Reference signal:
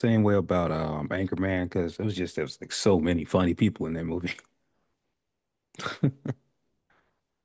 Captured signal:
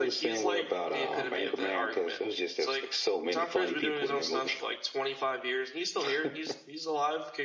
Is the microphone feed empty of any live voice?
No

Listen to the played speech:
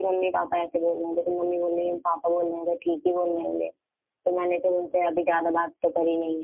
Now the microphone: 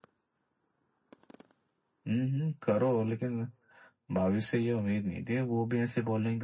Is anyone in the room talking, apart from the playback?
Yes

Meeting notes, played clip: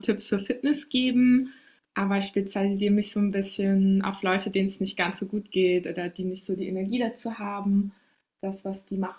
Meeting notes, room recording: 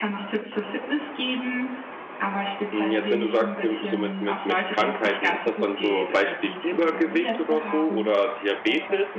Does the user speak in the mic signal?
Yes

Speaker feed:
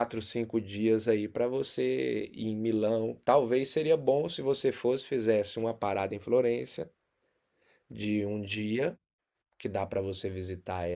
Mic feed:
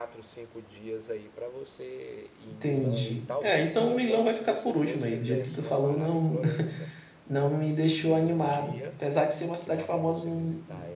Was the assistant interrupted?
Yes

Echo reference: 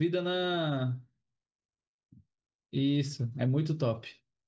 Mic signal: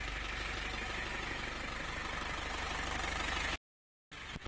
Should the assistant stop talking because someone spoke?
No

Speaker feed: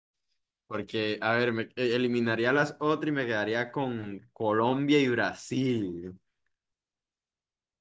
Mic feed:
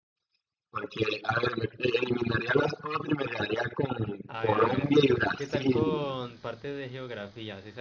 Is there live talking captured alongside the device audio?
Yes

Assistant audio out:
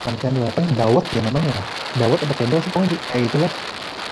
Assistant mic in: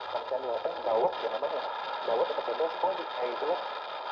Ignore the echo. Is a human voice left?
No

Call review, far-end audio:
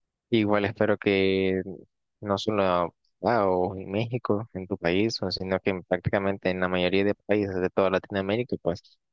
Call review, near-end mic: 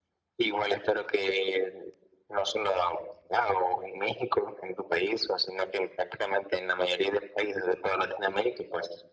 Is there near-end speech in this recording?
No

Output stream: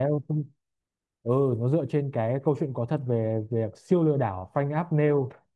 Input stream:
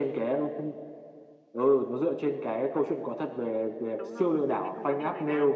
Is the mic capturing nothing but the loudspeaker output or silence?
No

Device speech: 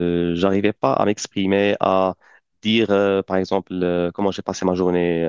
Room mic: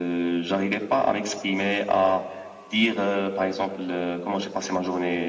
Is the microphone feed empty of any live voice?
Yes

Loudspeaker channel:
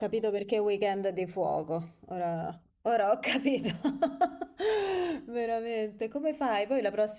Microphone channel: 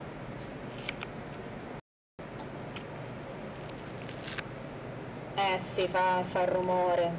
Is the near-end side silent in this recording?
No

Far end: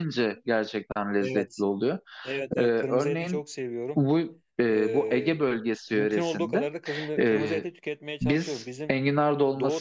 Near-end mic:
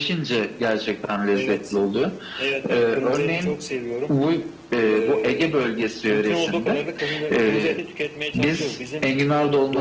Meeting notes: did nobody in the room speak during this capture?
Yes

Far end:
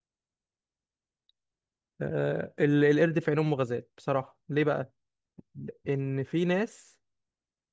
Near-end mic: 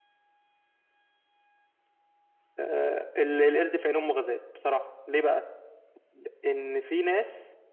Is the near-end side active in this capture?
No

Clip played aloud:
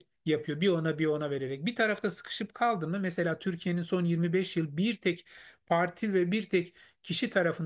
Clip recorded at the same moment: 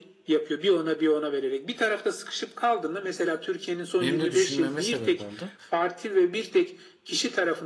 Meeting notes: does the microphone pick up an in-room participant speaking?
Yes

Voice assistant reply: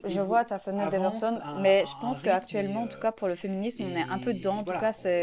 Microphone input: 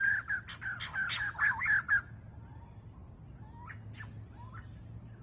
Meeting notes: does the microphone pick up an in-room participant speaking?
No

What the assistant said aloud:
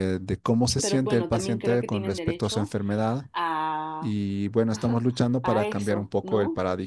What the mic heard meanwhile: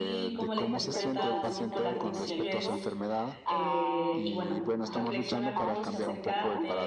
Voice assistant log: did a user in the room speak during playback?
Yes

